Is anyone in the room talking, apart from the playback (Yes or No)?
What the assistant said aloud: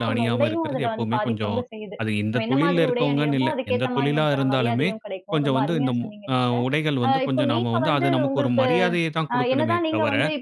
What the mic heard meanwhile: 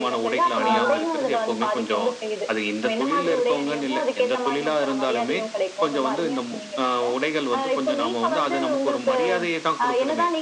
Yes